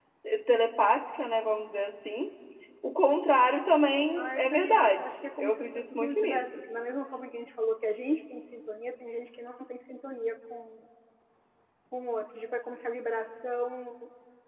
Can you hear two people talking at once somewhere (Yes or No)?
Yes